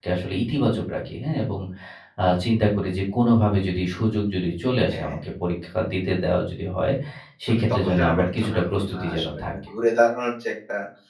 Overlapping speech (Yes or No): Yes